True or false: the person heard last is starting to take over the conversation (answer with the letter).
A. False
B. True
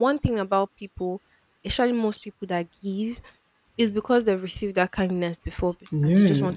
B